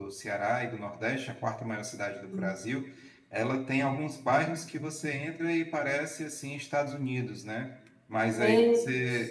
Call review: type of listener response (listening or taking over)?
listening